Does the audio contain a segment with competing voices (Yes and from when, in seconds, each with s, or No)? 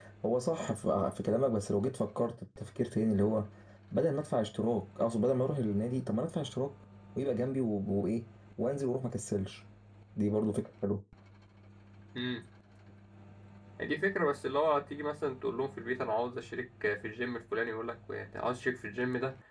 No